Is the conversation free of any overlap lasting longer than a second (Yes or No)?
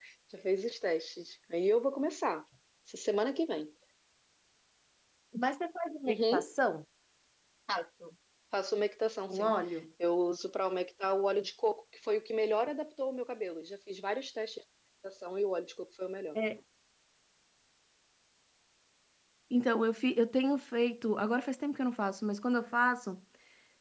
Yes